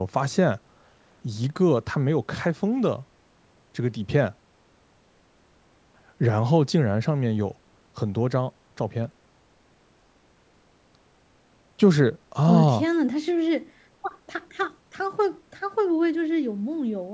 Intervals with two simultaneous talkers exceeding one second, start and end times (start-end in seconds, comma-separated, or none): none